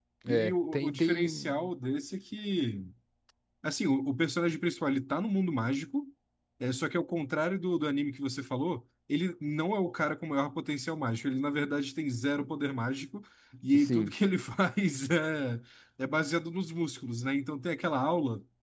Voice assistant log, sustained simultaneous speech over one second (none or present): present